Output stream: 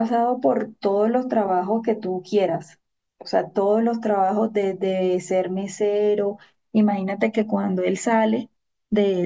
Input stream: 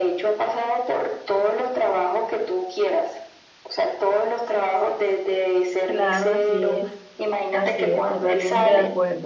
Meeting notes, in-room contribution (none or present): present